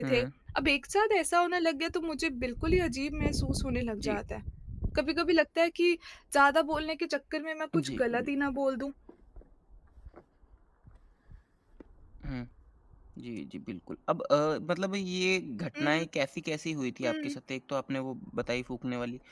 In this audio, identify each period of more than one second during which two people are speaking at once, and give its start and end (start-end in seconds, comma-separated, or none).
none